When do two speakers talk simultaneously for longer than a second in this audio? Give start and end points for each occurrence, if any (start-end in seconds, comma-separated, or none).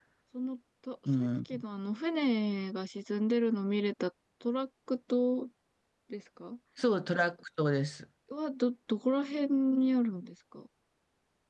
none